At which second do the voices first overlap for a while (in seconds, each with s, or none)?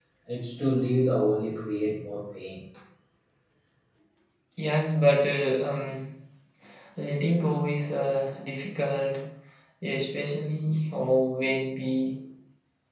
none